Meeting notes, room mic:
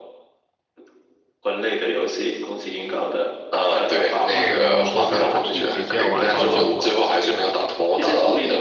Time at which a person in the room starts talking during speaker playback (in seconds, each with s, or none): 4.3 s